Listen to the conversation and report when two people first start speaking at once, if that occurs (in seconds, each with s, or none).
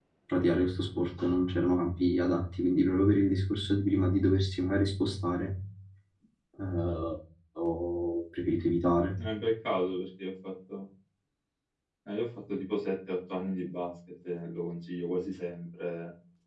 none